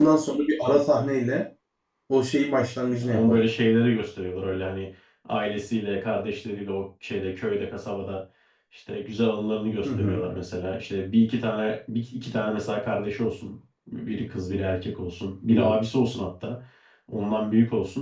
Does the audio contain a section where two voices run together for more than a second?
No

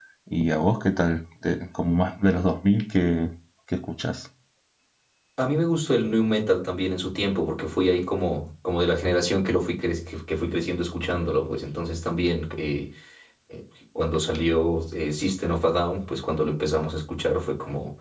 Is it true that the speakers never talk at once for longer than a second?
Yes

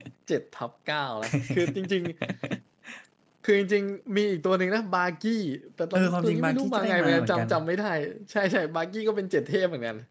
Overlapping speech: Yes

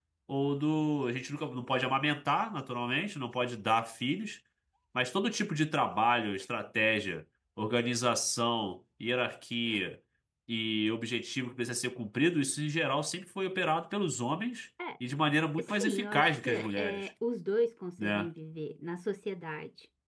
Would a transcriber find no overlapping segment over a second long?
No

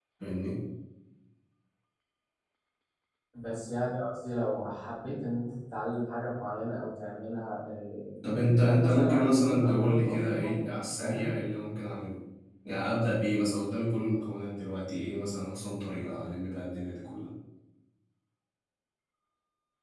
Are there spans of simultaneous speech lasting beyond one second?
Yes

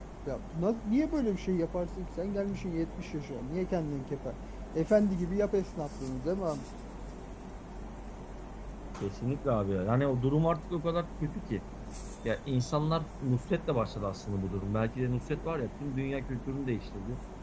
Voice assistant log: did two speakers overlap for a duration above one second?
No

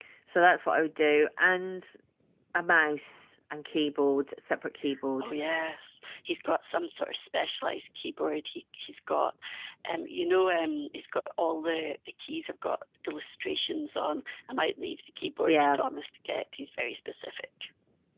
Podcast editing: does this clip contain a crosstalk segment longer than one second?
No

